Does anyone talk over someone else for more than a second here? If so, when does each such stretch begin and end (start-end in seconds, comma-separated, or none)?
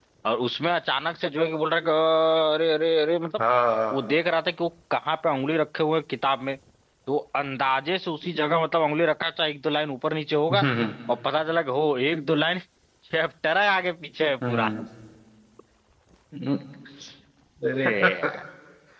none